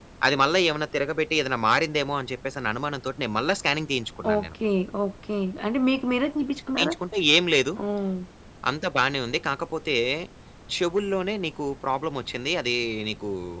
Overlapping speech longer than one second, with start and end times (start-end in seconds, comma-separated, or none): none